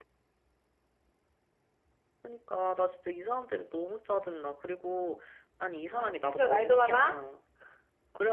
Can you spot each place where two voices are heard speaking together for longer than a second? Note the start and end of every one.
5.7-7.2

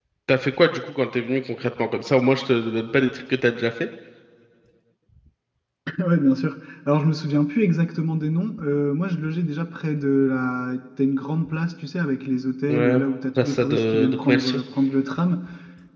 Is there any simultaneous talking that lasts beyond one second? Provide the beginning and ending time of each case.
13.4-14.6

